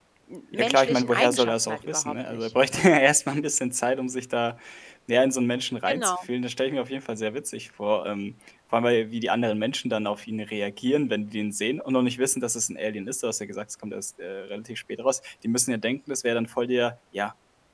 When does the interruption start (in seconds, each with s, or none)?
0.5 s